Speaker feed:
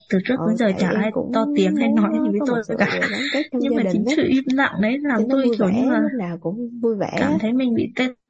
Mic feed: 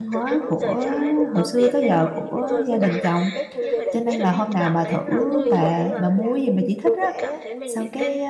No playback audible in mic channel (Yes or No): No